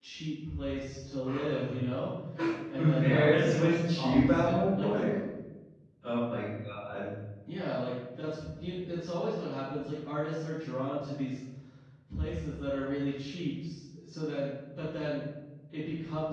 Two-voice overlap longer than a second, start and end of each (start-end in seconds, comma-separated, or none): 3.0-5.0